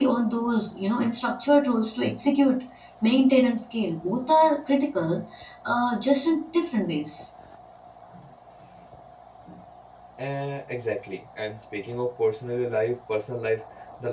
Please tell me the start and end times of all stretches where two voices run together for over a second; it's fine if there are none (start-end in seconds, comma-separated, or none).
none